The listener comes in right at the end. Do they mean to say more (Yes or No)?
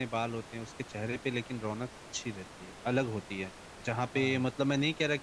No